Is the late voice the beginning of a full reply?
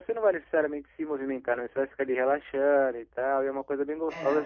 No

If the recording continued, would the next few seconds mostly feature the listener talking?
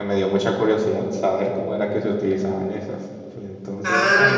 Yes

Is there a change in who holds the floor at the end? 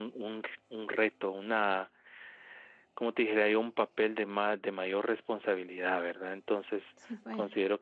No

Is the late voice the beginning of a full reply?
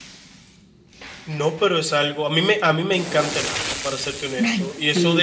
No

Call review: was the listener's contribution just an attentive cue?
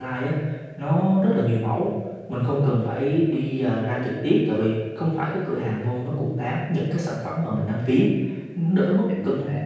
Yes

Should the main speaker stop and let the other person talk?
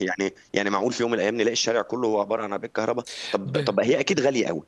No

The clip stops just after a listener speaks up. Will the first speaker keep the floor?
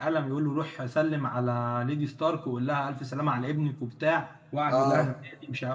Yes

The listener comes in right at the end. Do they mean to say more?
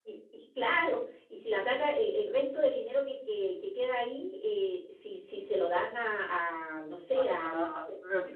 Yes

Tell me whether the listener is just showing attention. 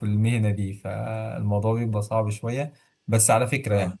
Yes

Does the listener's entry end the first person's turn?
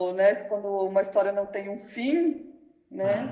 Yes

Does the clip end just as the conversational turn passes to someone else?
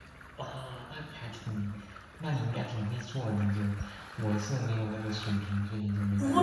Yes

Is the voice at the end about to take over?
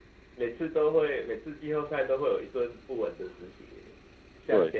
No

